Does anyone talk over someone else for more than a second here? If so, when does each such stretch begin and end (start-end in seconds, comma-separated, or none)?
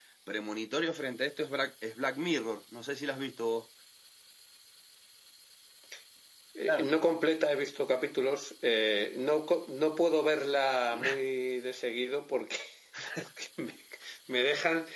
none